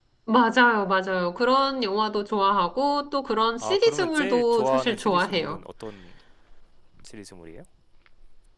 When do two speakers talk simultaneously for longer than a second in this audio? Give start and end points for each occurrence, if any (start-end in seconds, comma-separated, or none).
3.6-5.6